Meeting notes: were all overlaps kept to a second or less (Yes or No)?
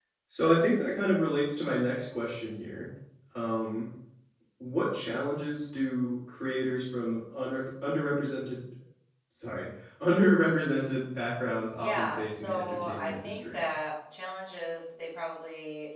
No